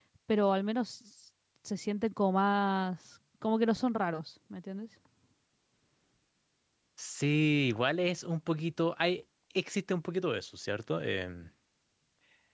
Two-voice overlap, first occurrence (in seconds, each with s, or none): none